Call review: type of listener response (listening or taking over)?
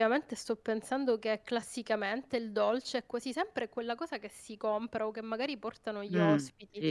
taking over